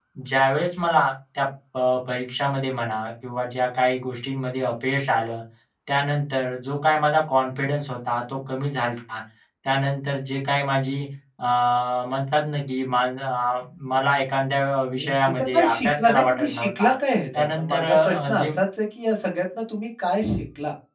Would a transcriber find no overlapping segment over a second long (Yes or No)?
No